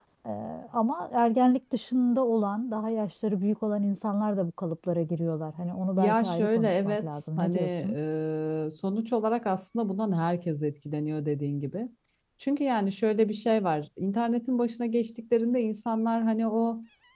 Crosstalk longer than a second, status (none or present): present